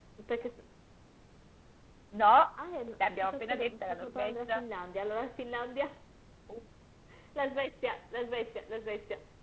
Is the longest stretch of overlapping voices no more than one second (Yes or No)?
No